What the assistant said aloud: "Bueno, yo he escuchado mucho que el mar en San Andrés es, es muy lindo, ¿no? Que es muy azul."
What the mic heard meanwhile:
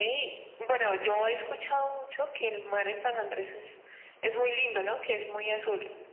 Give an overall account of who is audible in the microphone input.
echo only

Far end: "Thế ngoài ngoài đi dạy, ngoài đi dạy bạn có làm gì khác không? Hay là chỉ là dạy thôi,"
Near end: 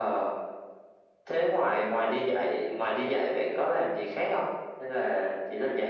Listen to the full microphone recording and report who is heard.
echo only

